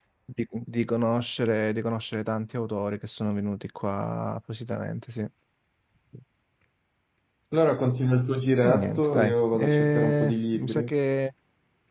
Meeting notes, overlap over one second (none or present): present